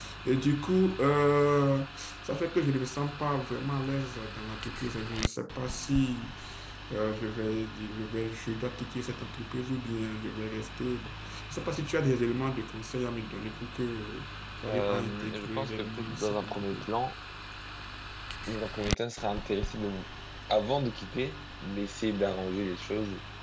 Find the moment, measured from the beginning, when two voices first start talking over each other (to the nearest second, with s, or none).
15 s